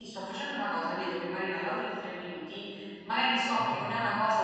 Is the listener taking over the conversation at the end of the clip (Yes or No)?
No